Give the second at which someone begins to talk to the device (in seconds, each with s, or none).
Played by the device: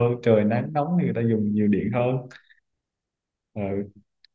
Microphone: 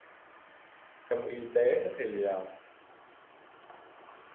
1.1 s